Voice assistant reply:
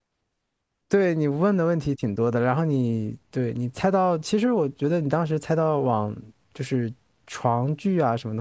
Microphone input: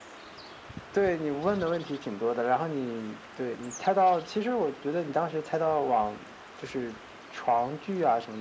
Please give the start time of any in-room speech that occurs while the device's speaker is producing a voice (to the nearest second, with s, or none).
none